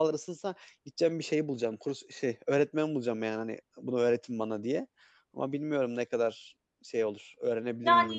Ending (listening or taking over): taking over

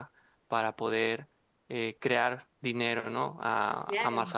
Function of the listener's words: listening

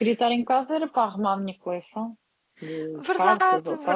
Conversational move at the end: taking over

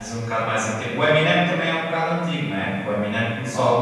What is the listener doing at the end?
listening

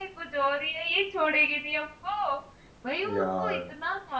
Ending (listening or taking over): listening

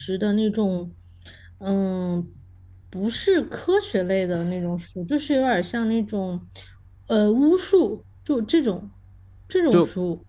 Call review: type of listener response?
taking over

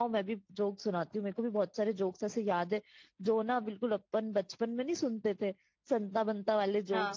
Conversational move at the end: listening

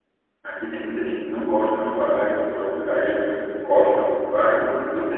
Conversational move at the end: listening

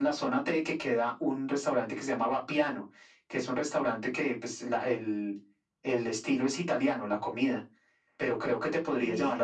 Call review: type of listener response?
listening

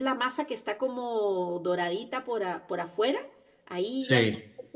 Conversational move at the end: listening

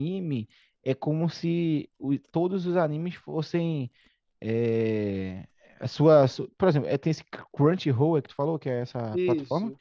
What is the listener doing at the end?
taking over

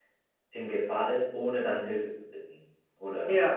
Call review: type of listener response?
listening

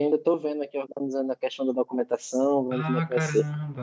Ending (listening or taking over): taking over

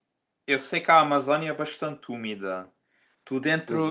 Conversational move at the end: listening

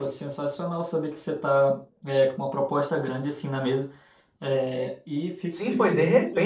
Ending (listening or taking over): taking over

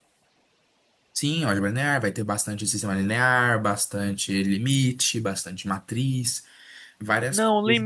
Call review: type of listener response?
taking over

